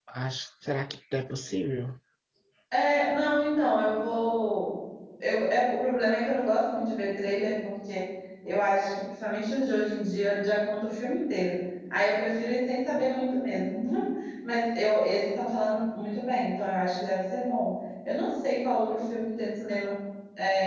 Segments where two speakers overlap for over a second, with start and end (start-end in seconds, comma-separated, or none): none